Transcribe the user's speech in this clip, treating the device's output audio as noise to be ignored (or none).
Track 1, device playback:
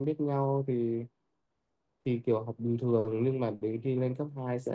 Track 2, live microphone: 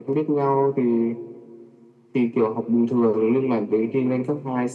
none